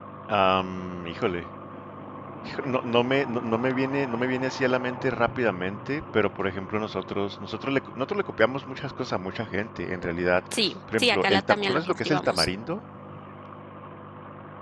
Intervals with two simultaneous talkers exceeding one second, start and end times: 11.0-12.5

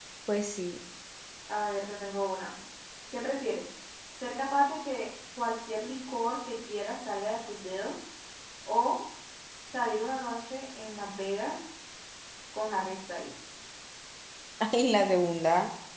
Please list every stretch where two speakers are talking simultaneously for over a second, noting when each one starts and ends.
none

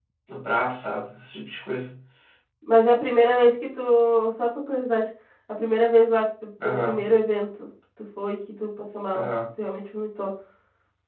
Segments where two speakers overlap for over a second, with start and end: none

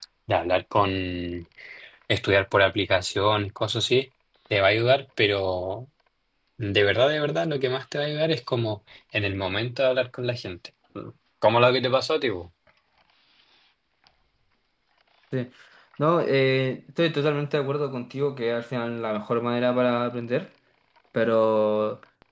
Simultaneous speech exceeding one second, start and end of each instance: none

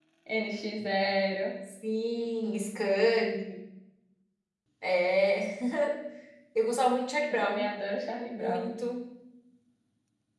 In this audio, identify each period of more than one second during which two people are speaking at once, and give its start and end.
none

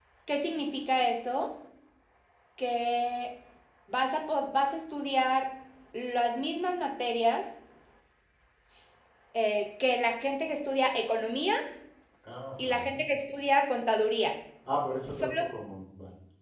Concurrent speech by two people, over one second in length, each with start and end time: none

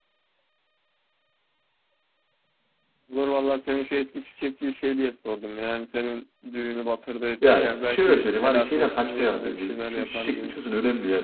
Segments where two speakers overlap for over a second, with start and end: 7.5-10.5

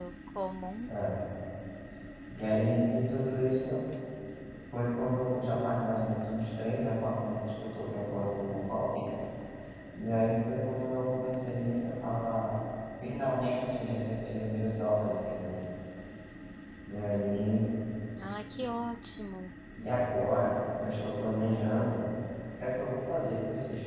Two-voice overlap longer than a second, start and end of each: none

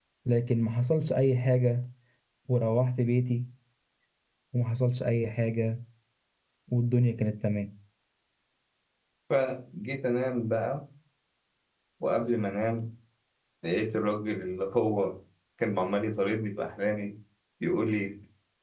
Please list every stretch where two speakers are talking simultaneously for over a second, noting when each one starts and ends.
none

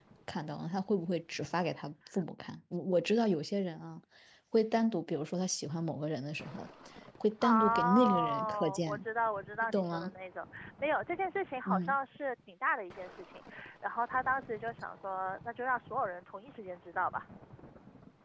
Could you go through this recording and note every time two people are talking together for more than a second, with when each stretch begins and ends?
7.4-9.0

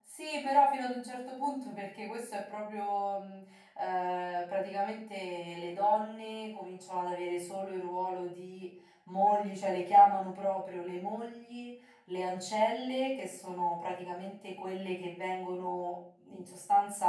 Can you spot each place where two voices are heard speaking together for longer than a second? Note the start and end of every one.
none

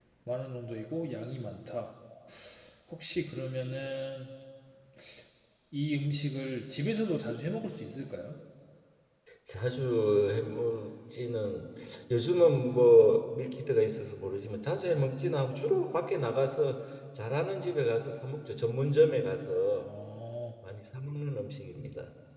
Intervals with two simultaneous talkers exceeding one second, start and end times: none

